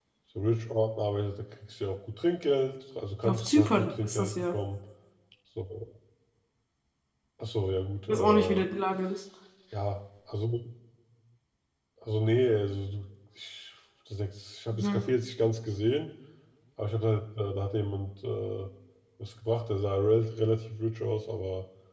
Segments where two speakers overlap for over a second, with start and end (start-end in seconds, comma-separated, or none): 3.2-4.5